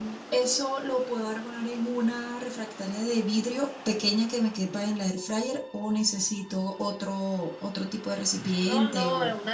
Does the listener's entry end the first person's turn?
Yes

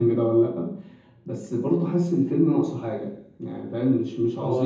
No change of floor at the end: No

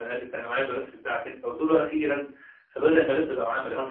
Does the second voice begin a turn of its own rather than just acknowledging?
No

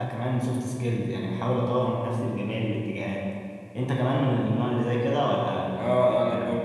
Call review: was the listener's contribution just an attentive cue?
No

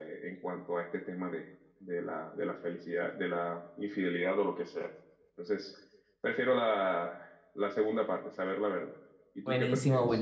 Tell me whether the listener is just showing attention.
No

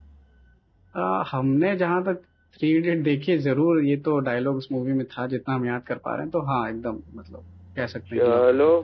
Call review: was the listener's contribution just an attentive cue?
No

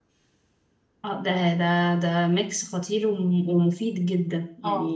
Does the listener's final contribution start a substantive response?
Yes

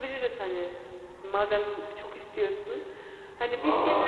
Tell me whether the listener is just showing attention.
No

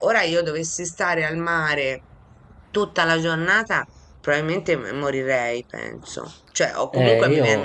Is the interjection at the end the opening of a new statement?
No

